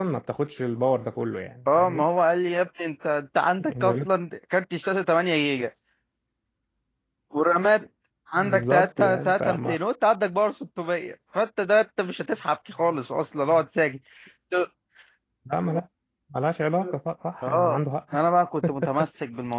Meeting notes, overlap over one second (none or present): present